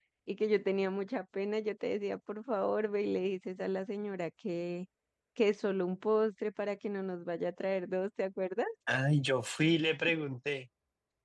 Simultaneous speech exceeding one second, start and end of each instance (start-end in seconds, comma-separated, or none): none